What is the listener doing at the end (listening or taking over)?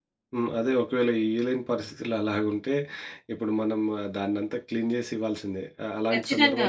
listening